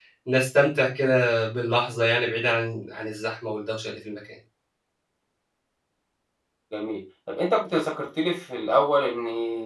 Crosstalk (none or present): none